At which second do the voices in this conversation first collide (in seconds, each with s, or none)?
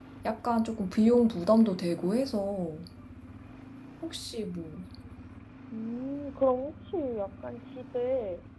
none